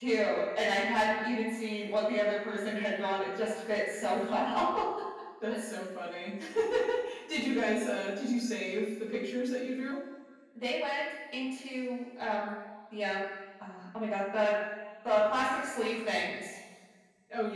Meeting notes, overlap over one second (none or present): none